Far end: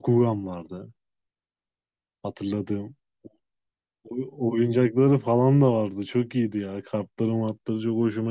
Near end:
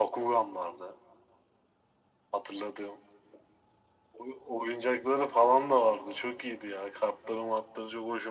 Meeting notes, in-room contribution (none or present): none